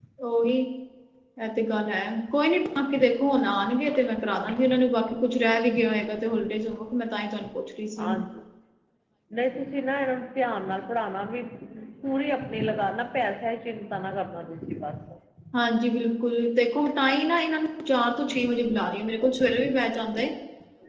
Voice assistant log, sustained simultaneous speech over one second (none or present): none